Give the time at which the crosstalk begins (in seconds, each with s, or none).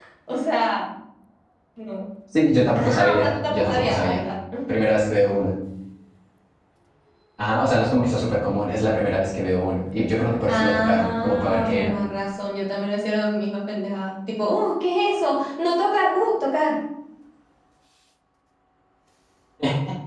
2.8 s